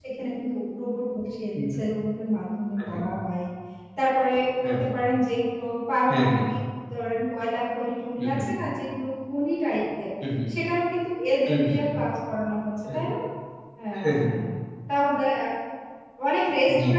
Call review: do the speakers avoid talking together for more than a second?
Yes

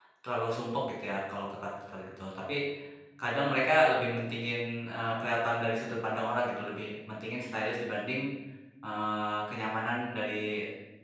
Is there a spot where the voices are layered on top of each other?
No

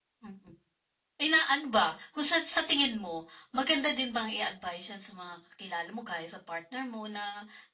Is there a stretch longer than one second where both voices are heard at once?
No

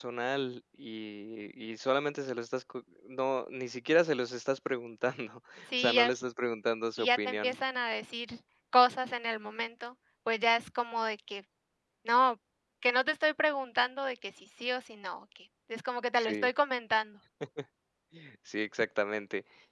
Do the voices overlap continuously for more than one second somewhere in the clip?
No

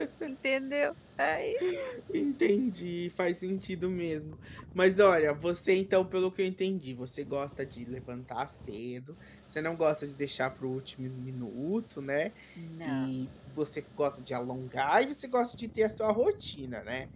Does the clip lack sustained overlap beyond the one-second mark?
Yes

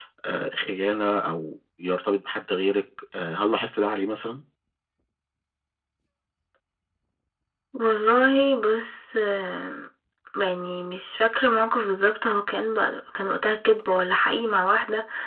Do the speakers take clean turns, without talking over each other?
Yes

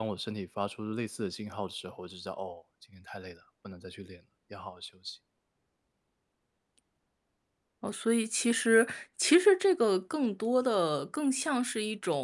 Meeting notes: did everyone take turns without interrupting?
Yes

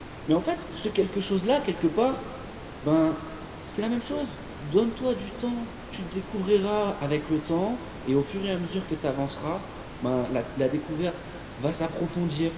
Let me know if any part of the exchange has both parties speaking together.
No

